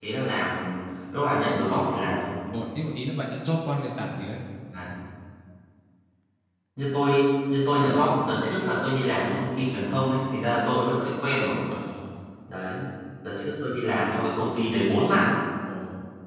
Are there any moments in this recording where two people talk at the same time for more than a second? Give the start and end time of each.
none

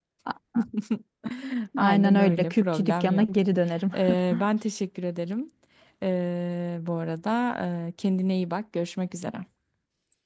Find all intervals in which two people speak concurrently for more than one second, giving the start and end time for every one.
1.8-3.3

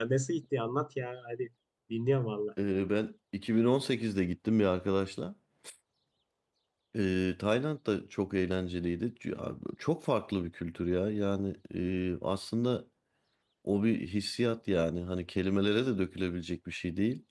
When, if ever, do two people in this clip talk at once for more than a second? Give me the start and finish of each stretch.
none

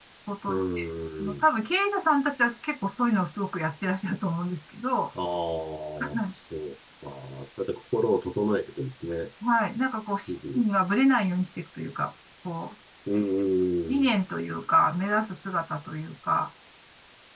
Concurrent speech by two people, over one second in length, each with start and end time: none

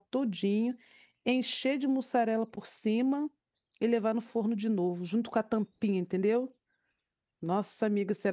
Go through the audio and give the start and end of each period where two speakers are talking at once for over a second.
none

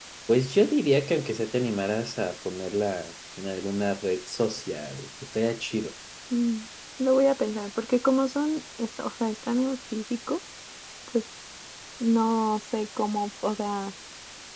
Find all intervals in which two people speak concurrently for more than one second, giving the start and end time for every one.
none

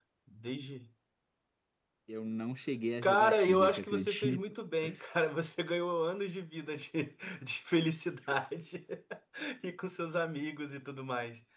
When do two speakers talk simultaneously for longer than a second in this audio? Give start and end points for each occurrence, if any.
3.0-4.4

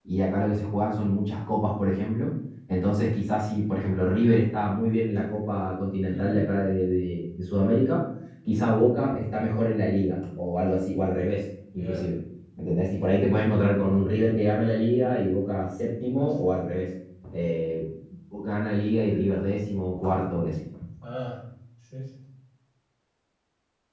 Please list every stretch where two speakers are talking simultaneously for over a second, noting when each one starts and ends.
none

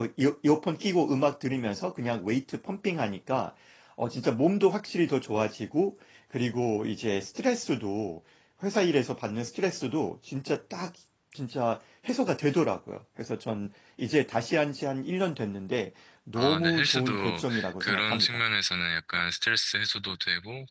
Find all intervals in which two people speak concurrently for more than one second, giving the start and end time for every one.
16.4-18.4

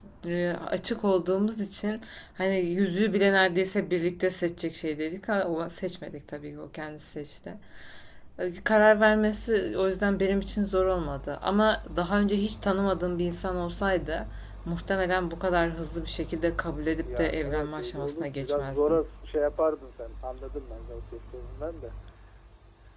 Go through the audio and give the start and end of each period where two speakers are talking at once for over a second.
17.0-19.0

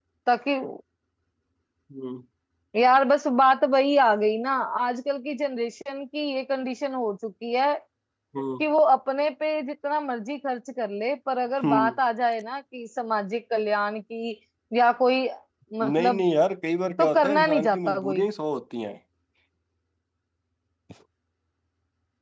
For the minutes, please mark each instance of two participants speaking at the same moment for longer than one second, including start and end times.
17.0-18.2

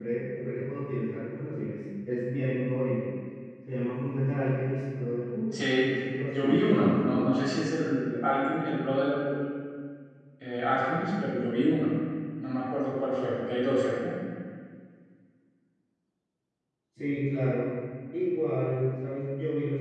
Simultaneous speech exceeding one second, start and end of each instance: 5.8-7.3

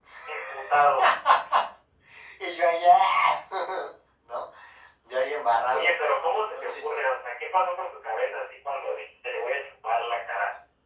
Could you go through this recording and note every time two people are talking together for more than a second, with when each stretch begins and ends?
none

